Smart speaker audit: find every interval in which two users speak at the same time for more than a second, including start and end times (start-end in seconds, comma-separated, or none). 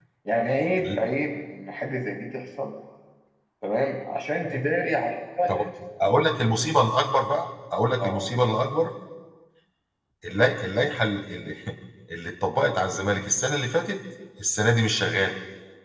none